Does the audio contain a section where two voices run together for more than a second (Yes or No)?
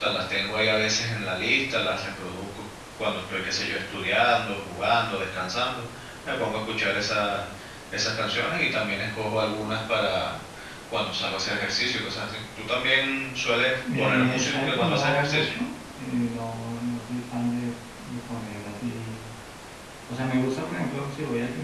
Yes